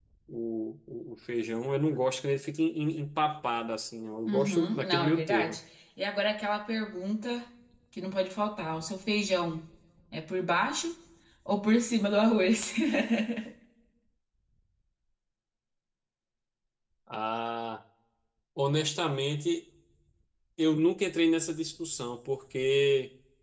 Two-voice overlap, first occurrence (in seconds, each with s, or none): 4.3 s